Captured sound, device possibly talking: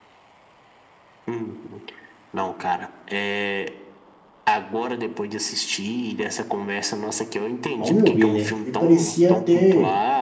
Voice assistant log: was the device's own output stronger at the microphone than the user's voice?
No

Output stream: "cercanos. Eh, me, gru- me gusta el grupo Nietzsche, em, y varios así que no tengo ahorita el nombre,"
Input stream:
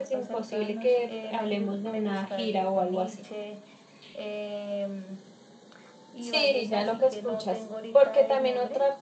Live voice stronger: Yes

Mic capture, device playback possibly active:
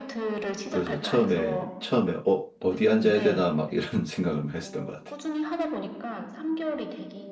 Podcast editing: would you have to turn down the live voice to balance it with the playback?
Yes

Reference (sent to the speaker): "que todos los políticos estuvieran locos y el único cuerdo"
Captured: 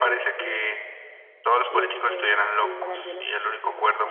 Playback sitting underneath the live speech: No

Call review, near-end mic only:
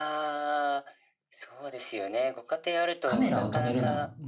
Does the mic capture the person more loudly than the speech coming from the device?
Yes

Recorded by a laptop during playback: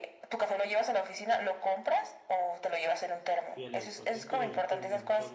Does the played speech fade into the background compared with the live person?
No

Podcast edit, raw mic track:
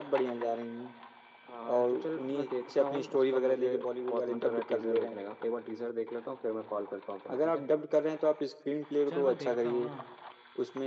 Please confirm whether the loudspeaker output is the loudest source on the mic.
Yes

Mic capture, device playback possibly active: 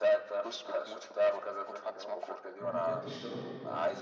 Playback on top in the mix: Yes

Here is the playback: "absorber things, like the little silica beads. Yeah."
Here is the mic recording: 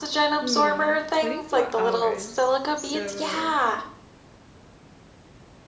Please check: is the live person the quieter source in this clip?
Yes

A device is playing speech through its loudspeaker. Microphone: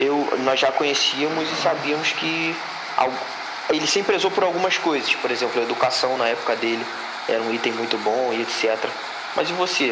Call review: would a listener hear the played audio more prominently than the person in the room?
Yes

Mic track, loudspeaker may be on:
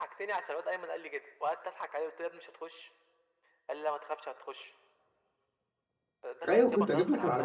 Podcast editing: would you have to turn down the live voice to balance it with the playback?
Yes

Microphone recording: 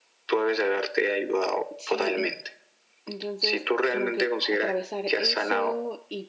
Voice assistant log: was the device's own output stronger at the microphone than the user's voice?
Yes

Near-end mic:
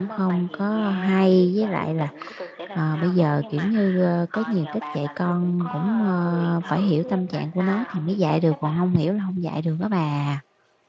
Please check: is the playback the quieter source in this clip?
Yes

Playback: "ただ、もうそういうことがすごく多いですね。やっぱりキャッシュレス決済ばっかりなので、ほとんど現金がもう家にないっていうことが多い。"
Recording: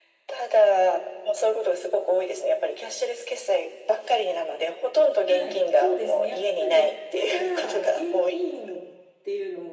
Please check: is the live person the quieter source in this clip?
Yes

